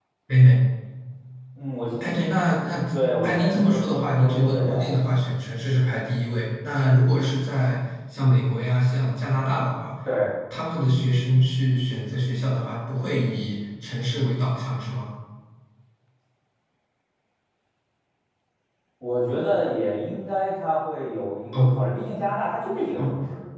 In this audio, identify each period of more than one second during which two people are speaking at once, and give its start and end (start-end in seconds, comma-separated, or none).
3.2-4.9